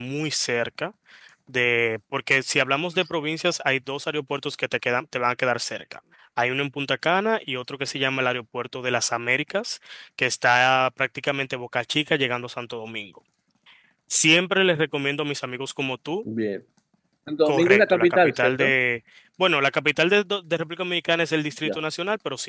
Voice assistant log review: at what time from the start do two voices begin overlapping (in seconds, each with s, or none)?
17.4 s